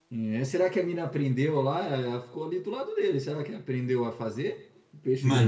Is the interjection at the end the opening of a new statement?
Yes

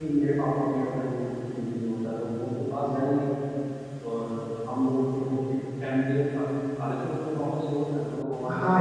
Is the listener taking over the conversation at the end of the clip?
Yes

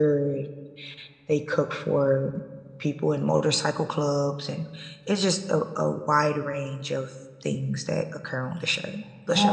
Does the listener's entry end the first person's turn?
Yes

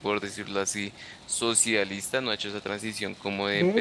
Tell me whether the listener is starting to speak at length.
Yes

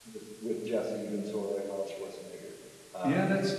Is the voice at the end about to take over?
Yes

